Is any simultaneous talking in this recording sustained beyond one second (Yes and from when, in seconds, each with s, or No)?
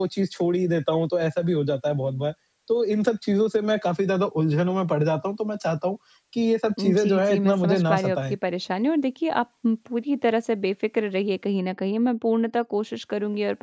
Yes, from 6.8 s